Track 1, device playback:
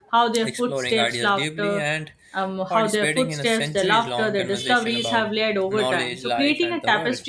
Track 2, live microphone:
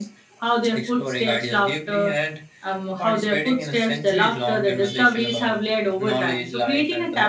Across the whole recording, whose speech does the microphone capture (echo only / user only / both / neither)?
echo only